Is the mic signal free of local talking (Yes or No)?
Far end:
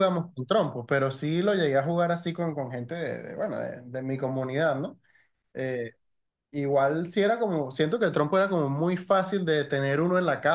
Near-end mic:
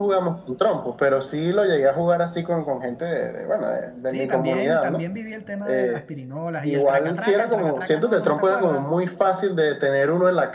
No